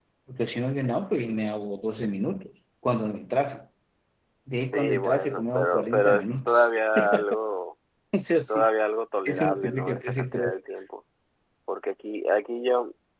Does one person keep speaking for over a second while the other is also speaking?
Yes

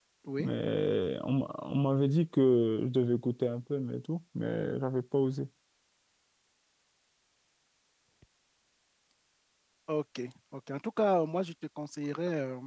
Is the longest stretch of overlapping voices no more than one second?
Yes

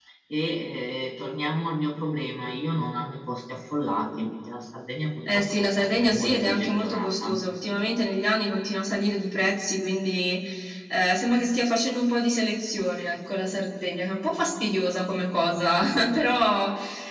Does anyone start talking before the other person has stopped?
Yes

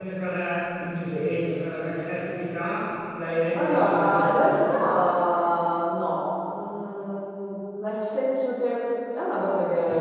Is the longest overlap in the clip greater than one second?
Yes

